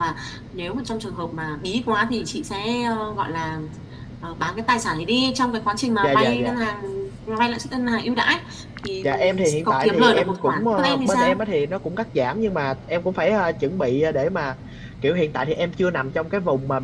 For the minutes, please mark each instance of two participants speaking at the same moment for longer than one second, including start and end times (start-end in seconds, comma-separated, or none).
9.0-11.4